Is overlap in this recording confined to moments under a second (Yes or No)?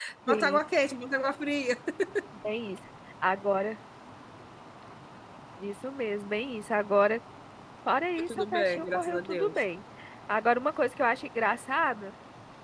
No